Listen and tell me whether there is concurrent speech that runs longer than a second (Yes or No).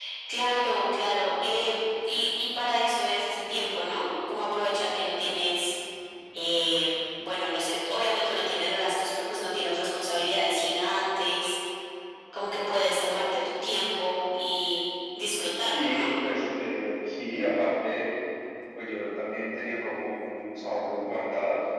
No